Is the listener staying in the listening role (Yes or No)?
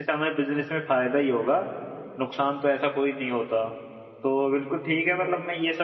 Yes